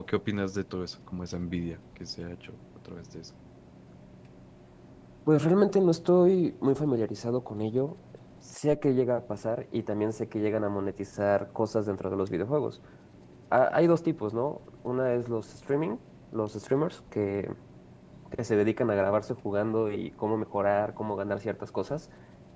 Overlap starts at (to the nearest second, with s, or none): none